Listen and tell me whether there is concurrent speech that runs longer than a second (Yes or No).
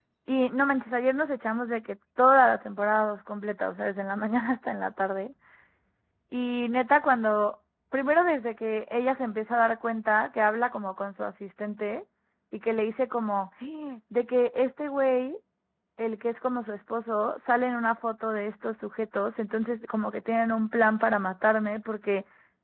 No